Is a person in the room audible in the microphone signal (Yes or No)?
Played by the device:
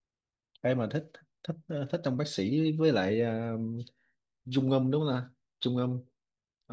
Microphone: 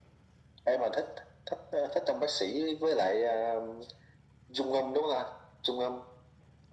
No